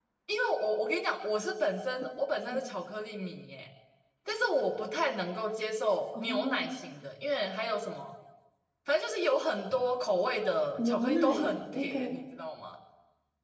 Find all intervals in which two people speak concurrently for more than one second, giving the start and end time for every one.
10.8-12.1

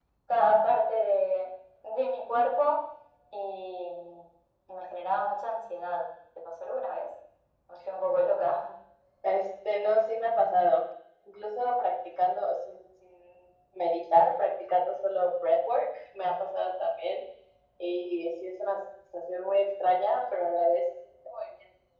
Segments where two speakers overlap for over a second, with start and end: none

